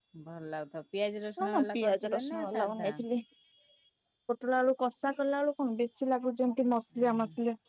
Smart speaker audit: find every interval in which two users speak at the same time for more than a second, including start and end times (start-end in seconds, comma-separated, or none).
1.4-2.9